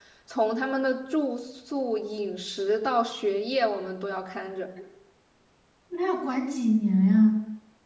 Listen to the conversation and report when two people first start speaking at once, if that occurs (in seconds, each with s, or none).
none